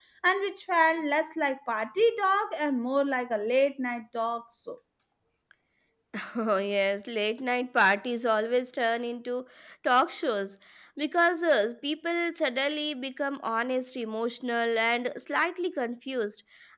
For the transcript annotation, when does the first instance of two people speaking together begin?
none

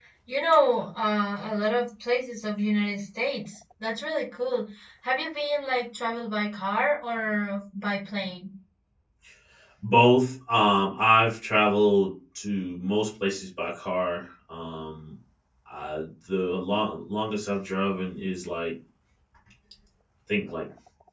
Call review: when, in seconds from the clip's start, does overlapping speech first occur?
none

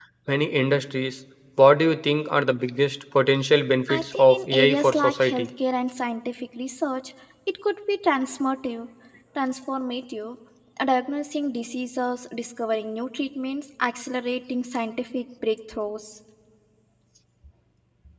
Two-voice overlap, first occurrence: 3.9 s

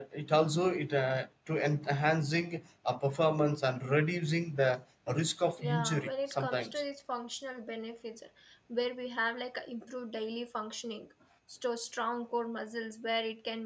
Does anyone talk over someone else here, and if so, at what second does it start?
5.6 s

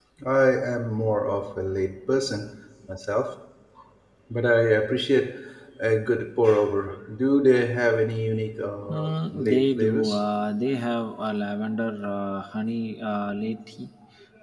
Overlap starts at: 8.9 s

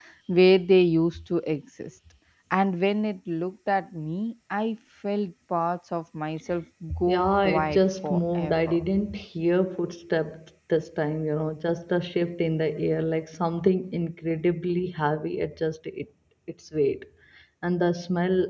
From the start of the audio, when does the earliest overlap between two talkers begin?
7.1 s

